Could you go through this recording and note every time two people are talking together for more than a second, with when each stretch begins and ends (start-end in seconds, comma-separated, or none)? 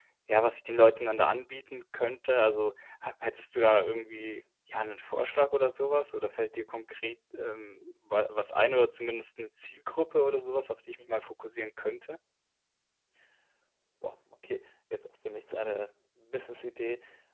none